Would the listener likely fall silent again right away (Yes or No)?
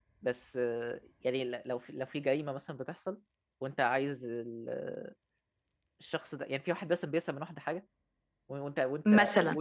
Yes